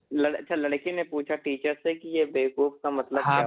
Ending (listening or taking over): taking over